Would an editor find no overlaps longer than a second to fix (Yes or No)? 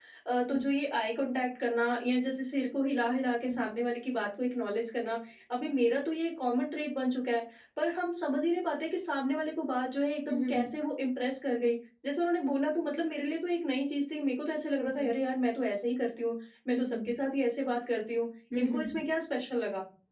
Yes